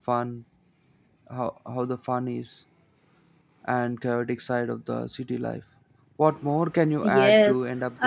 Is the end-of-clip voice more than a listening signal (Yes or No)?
Yes